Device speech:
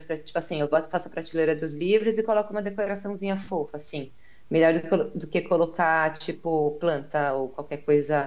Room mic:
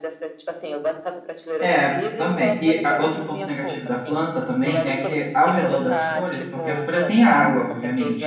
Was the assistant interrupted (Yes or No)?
Yes